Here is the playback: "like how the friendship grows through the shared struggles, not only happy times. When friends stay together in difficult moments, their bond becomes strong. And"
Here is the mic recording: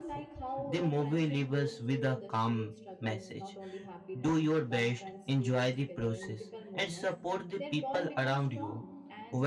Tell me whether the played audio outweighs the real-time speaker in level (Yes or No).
No